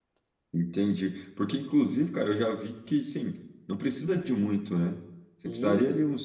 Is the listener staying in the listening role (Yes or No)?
Yes